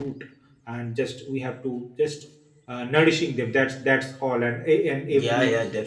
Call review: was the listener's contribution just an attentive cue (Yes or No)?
No